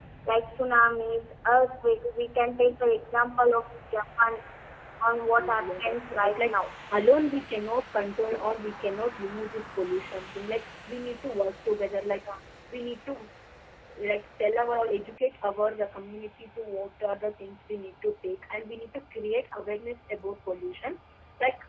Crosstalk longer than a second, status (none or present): present